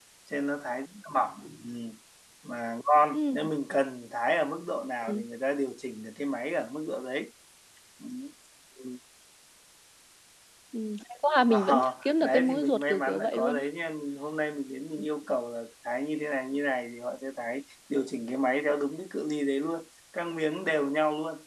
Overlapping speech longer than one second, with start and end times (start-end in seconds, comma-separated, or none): 11.5-13.6